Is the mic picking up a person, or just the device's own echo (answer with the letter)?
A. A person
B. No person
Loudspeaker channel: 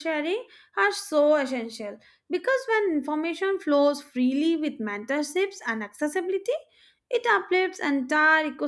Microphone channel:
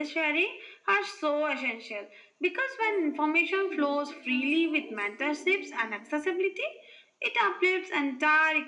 A